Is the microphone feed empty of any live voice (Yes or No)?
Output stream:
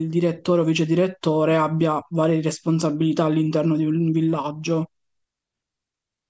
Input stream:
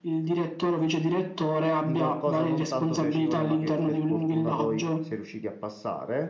No